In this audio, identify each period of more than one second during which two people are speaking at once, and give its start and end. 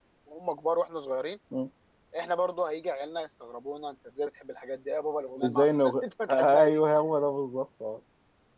5.4-6.8

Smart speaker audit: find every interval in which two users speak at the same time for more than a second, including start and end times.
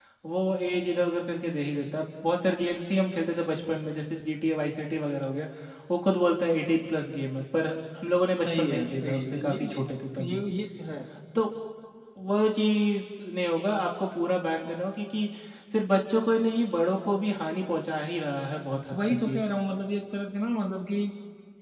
8.5-9.8

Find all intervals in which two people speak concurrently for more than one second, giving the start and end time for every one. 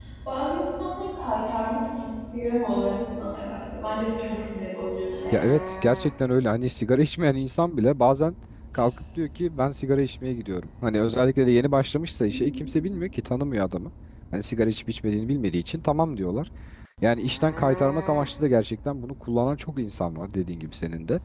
none

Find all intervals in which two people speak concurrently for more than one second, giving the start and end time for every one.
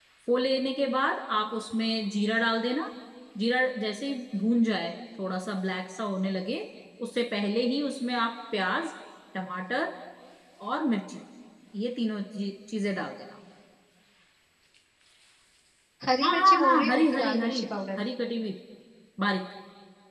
16.2-17.6

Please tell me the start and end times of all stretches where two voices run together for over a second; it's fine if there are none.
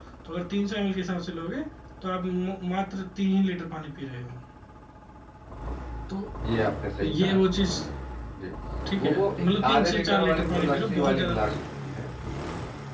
9.0-11.6

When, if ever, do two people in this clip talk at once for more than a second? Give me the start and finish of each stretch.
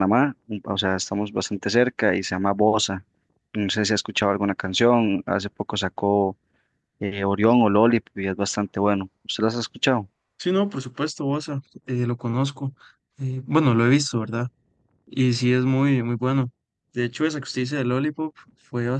none

